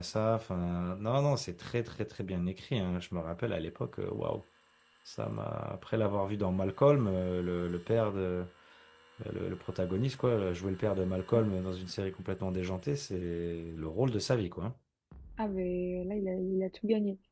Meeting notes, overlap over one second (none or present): none